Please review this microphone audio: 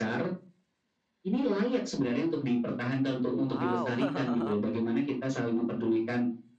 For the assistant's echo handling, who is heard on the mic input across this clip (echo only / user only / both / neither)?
both